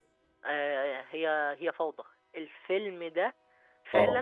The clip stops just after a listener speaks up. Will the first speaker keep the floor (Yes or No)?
Yes